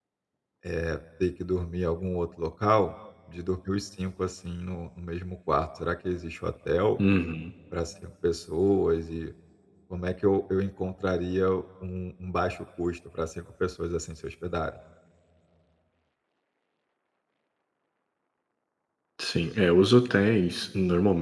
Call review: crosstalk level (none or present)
none